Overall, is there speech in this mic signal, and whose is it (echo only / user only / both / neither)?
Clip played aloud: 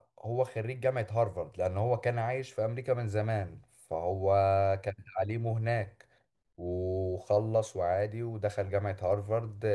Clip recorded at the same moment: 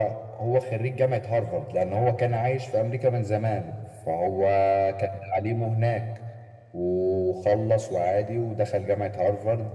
echo only